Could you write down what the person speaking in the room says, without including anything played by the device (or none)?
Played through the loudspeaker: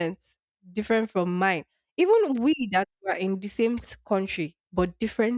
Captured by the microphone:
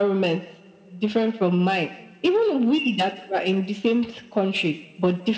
none